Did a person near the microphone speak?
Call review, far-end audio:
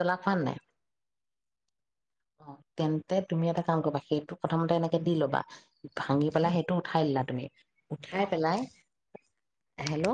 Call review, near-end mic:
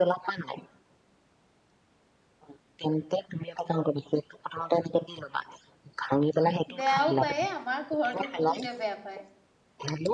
Yes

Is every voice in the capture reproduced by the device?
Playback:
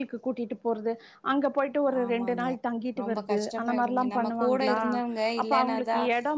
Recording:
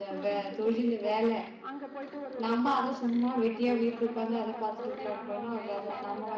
No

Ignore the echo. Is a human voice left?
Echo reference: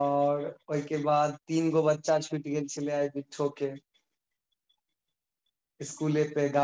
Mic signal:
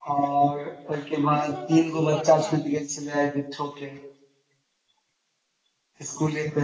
Yes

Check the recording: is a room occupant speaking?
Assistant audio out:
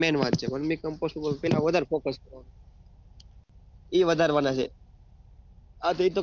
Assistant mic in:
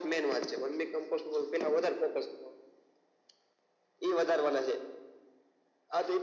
No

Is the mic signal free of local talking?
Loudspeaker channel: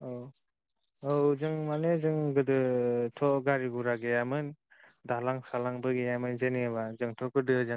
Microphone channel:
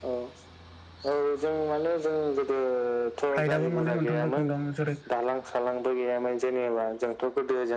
No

